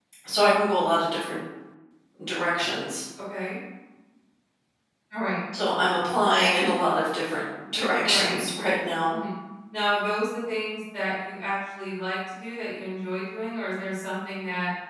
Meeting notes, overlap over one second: none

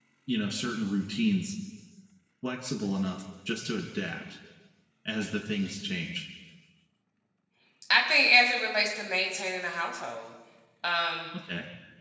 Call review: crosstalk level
none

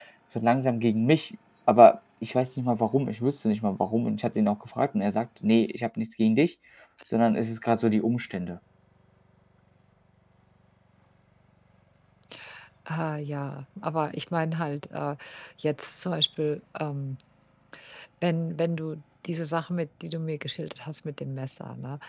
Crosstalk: none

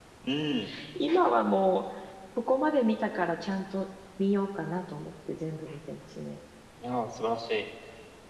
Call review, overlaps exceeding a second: none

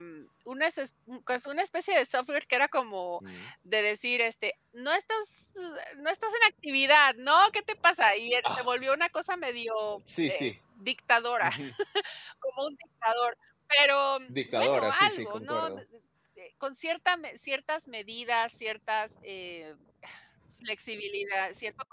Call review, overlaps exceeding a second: present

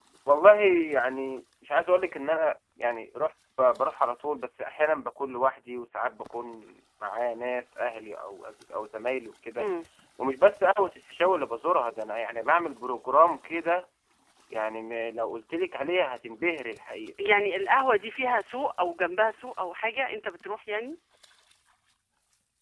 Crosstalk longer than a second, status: none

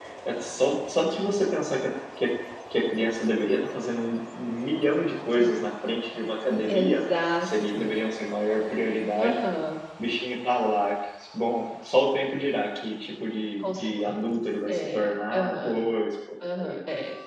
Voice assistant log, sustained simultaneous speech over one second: present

